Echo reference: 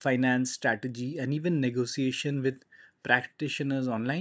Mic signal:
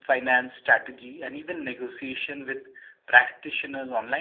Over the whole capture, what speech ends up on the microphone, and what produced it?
echo only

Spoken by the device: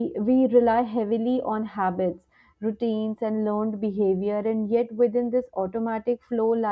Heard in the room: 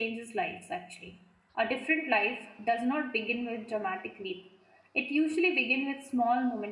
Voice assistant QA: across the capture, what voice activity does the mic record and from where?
user only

